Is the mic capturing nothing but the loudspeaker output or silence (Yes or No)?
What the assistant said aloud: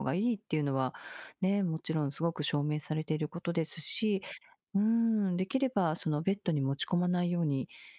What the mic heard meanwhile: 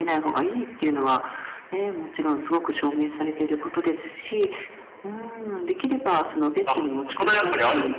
No